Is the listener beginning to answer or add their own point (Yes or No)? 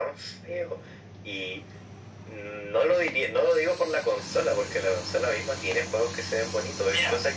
Yes